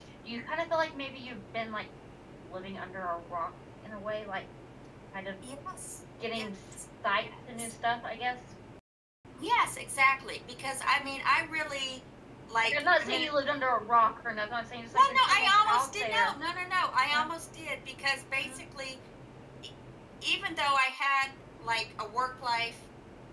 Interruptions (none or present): present